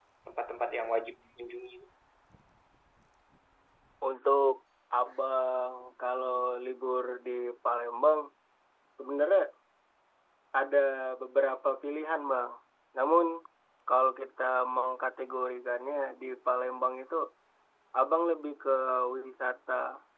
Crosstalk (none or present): none